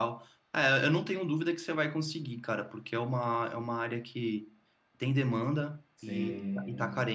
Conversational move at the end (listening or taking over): listening